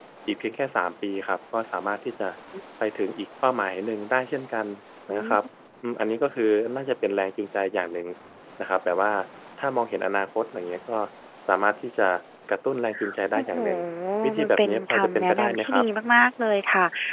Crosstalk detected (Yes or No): Yes